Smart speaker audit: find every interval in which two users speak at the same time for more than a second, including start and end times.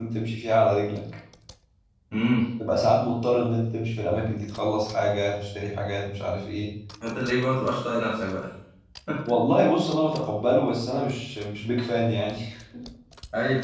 none

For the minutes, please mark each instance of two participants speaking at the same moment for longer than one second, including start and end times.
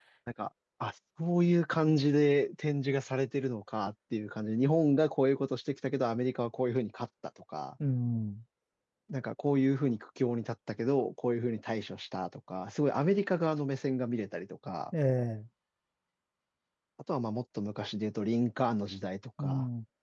none

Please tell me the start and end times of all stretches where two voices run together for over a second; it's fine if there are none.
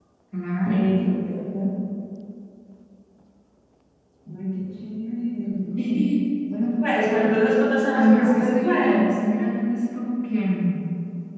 7.9-9.1

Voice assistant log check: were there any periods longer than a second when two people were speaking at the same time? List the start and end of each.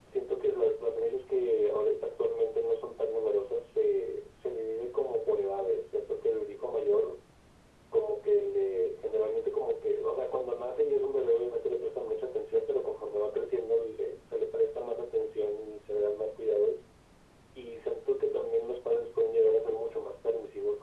none

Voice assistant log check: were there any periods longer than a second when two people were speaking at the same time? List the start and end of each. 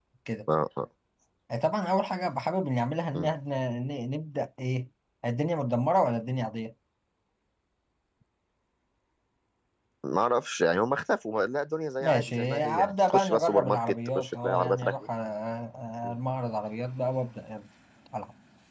12.0-14.9

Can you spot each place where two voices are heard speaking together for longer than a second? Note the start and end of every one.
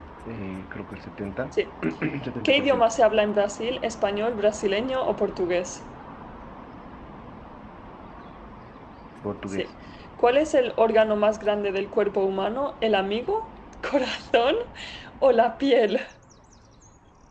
none

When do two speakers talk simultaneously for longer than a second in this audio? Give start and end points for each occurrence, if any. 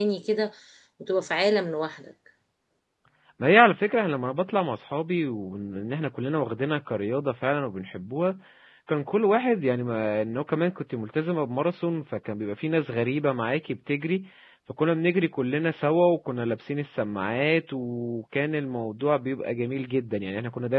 none

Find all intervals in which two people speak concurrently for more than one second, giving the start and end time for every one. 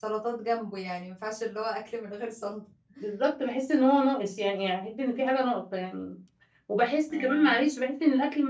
none

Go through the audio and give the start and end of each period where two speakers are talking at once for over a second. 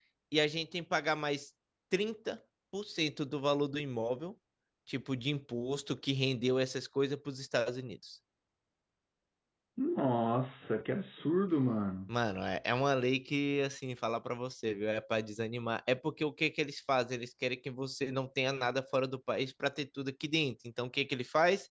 none

